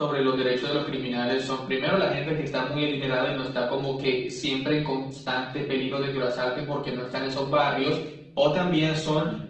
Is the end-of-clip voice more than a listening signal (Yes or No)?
No